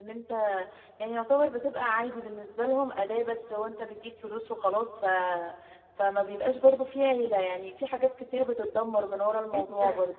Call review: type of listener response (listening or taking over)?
taking over